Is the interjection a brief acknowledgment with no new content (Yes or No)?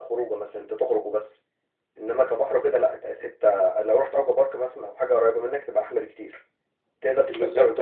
Yes